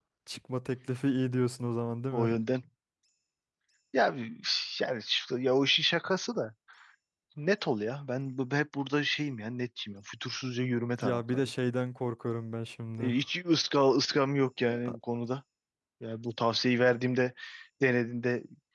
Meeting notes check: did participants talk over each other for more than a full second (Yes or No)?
No